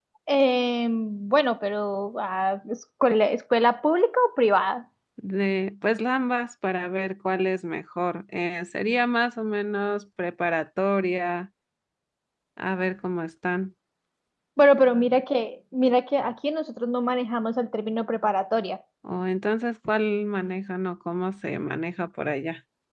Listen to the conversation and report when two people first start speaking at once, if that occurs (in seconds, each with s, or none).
none